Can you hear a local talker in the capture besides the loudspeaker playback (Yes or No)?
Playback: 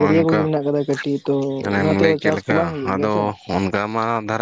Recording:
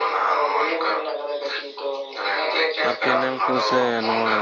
Yes